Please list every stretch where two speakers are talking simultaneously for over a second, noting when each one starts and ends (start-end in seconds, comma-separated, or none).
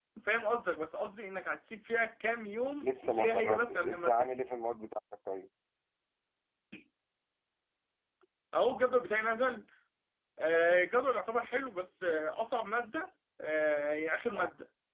2.8-4.3